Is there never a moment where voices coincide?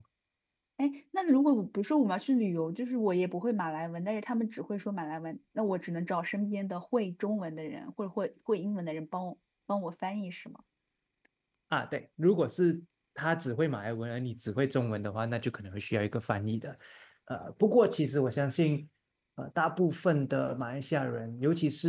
Yes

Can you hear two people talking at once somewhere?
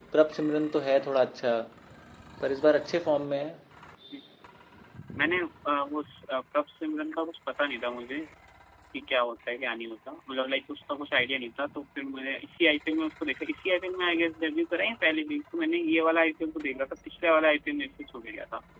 No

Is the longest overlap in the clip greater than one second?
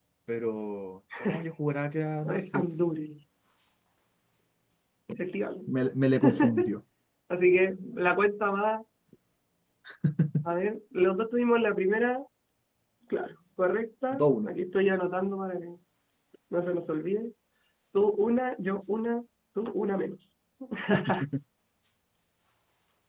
No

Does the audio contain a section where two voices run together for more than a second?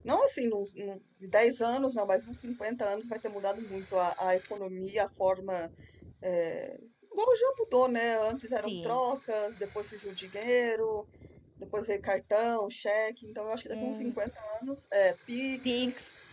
No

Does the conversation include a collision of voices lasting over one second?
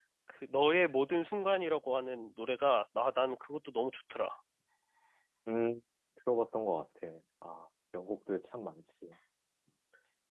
No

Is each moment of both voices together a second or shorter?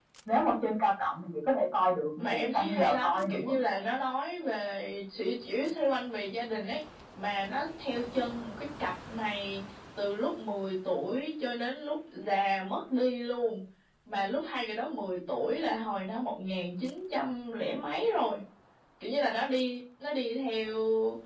No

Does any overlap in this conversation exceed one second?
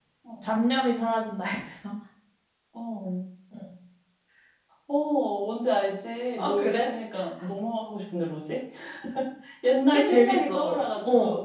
Yes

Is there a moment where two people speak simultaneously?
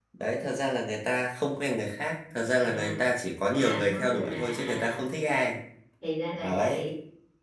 Yes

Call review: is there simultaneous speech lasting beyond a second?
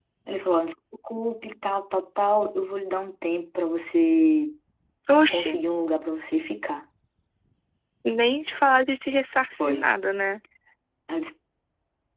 No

